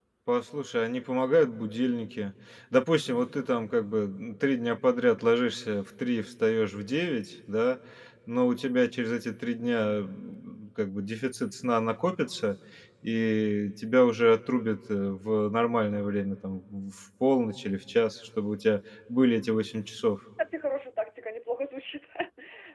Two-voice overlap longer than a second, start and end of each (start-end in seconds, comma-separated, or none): none